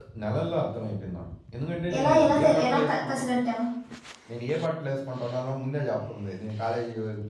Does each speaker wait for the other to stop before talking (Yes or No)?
No